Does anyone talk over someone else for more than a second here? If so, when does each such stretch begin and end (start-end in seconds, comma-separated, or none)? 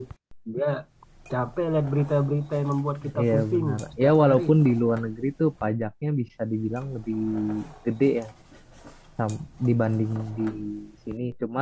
3.2-4.5